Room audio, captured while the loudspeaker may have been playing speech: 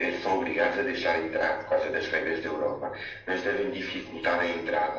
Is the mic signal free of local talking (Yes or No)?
Yes